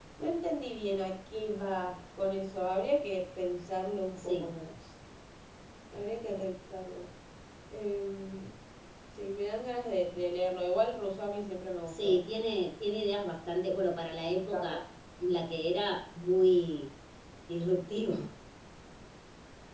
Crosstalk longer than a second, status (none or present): none